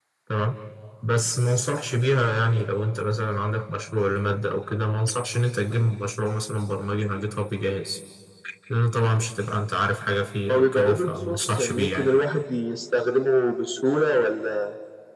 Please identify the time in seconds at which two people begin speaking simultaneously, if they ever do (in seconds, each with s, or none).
10.5 s